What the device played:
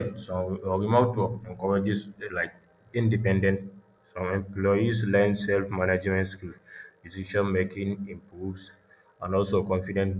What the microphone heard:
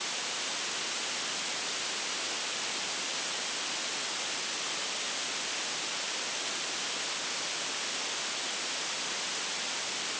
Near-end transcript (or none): none